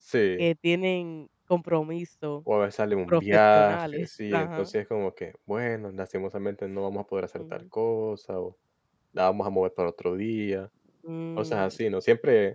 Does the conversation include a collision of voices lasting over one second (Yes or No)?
Yes